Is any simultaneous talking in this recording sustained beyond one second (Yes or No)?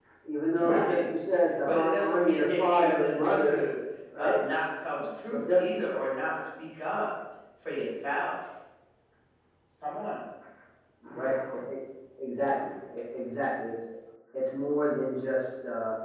Yes